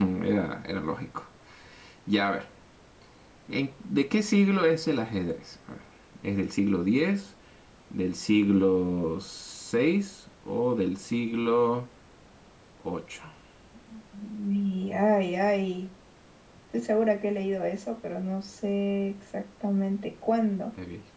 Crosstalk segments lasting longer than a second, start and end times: none

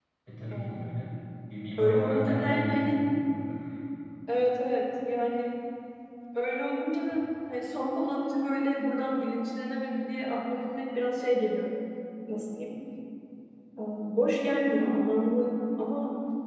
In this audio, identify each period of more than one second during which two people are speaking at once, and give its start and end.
1.8-3.0

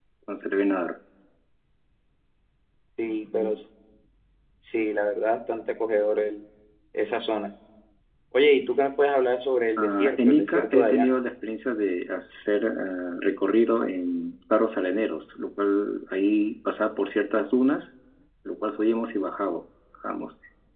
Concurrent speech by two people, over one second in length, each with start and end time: 9.8-11.1

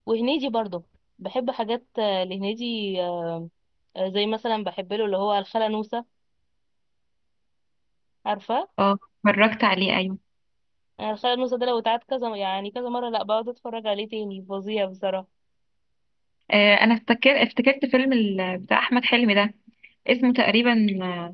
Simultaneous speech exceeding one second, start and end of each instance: none

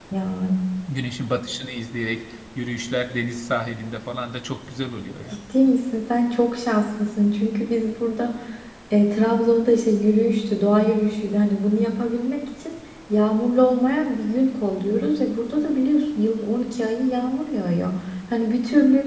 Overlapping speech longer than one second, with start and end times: none

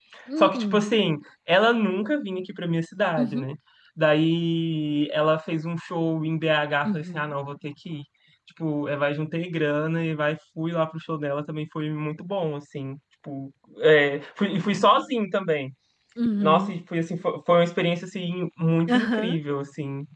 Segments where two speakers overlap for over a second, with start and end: none

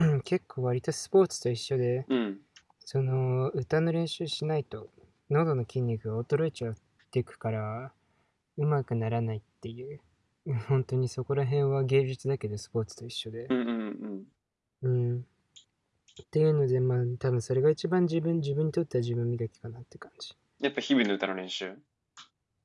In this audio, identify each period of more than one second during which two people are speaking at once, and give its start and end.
none

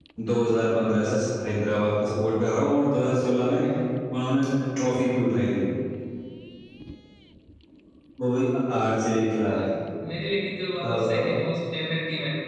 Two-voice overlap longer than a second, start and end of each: none

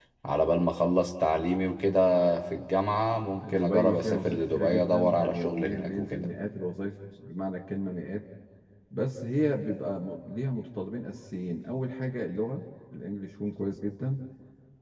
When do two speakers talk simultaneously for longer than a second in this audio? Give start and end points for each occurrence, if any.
3.4-6.3

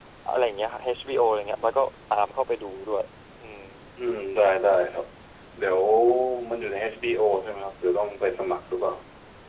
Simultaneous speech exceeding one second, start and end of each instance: none

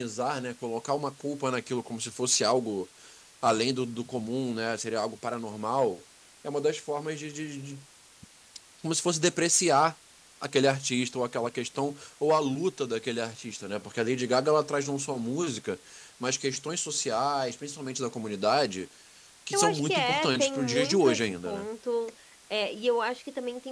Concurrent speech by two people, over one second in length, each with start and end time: 19.5-21.6

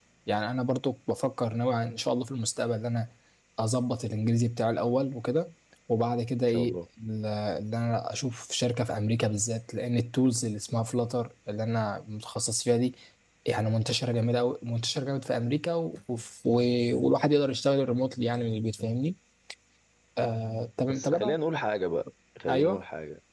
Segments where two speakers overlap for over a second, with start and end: none

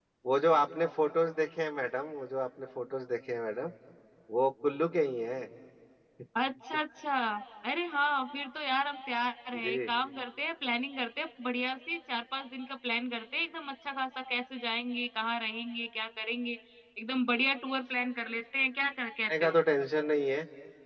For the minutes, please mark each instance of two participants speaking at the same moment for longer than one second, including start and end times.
none

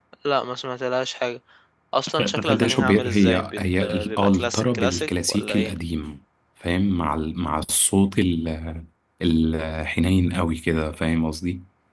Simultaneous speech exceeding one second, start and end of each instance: 2.2-5.7

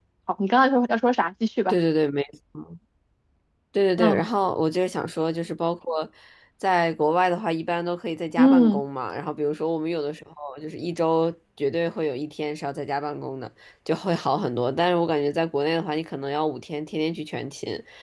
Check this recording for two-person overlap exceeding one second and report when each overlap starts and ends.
none

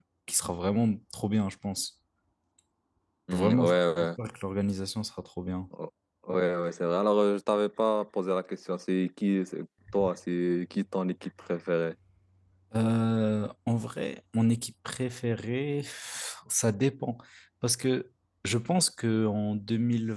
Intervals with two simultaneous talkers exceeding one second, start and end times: none

